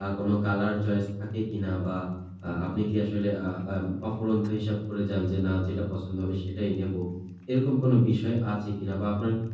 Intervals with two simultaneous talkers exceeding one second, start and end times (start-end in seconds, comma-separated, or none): none